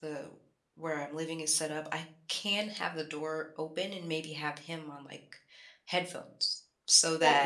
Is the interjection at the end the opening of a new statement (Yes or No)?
Yes